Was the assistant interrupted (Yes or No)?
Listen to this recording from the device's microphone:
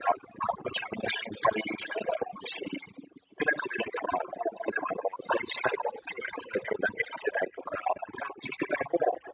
No